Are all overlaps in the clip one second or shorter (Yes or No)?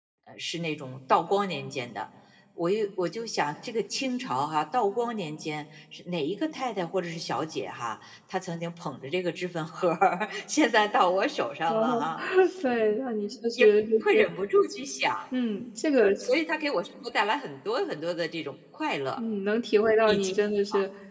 Yes